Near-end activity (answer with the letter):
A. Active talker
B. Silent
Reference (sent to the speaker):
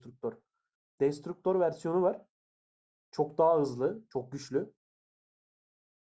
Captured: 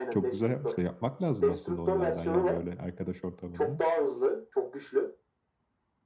A